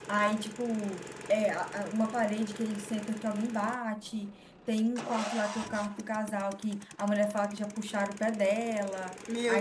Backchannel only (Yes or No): No